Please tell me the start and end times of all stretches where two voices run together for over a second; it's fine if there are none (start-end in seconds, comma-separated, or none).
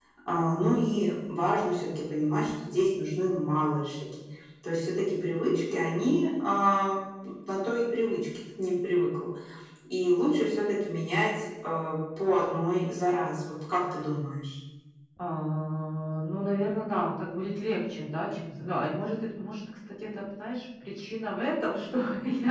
none